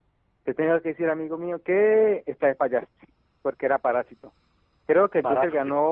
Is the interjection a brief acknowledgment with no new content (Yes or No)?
Yes